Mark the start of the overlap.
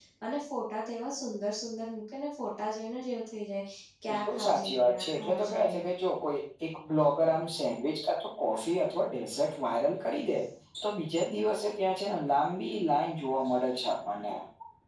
4.1 s

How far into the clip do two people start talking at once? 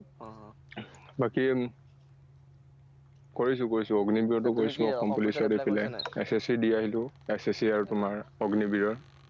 4.4 s

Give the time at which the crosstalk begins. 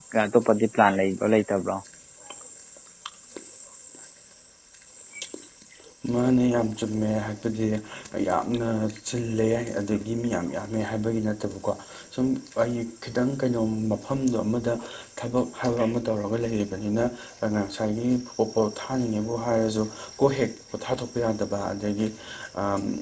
none

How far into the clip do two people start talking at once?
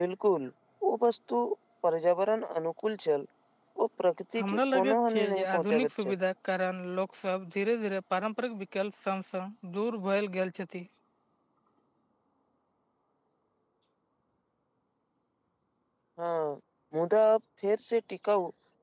4.4 s

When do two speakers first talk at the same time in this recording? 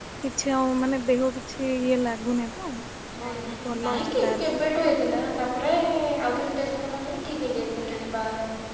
3.2 s

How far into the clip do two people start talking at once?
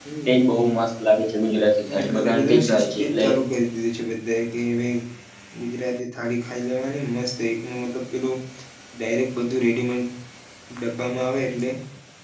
1.9 s

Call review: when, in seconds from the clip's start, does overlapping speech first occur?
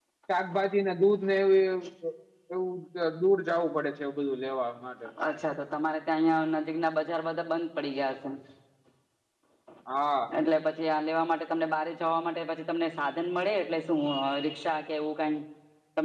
none

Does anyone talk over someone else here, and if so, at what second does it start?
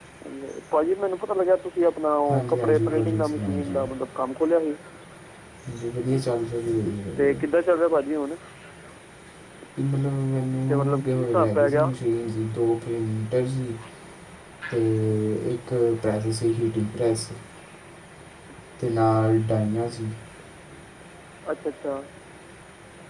2.3 s

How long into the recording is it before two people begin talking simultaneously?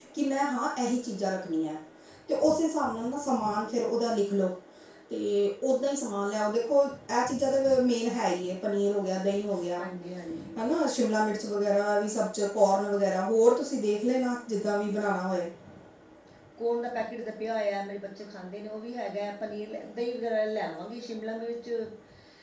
none

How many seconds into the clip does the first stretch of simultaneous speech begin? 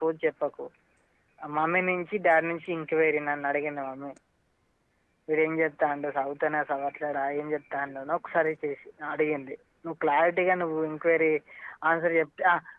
none

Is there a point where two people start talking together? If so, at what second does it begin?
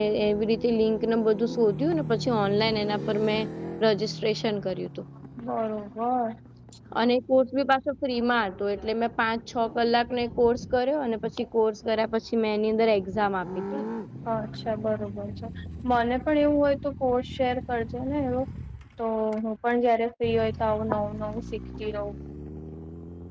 none

